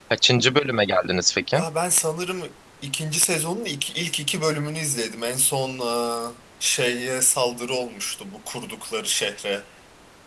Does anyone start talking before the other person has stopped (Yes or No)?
No